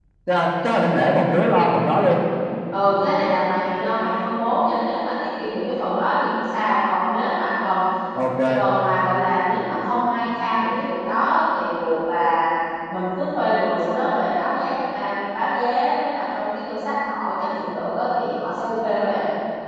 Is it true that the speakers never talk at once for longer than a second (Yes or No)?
Yes